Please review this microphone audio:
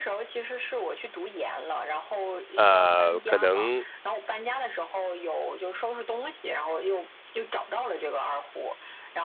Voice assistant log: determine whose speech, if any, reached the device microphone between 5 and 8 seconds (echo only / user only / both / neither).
echo only